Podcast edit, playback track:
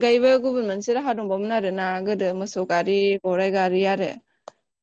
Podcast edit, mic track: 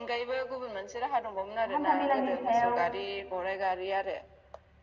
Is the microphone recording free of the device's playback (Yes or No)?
No